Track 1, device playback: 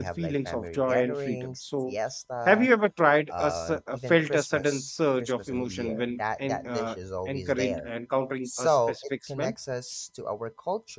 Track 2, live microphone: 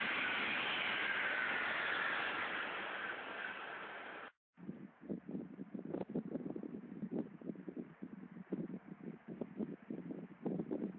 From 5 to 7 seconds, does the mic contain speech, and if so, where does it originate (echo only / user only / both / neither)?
neither